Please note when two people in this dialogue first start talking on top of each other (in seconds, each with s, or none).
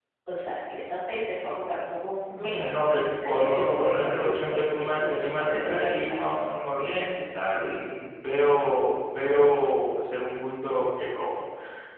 2.4 s